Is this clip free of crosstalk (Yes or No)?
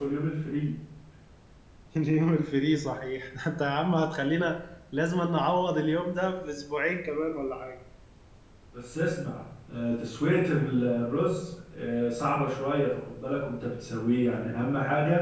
Yes